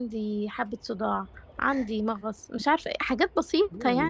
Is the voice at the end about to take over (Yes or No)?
Yes